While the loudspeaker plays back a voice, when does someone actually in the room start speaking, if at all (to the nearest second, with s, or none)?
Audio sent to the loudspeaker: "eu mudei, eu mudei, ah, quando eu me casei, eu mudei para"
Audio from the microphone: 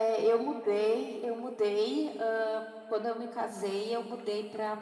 none